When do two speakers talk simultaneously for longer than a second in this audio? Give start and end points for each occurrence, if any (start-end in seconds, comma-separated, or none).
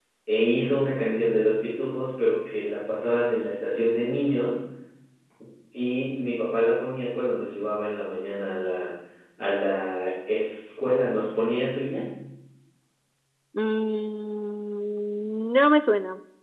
none